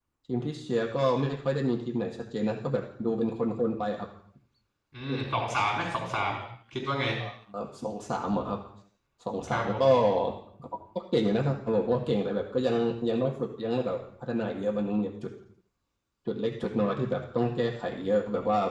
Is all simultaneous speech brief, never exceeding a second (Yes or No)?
Yes